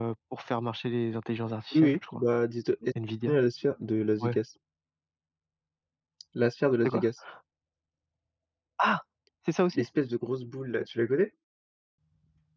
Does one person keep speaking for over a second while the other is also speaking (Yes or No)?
No